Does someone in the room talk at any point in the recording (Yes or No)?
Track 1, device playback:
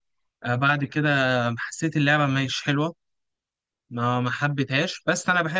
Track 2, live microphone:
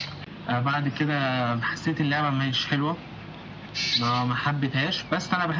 No